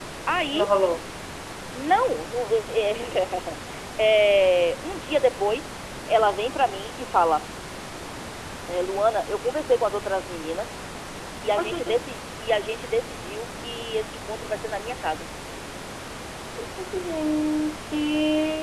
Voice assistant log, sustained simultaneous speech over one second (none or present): none